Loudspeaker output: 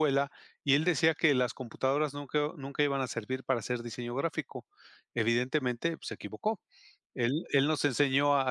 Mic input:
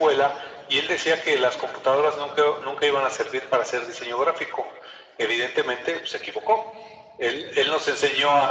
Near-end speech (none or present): none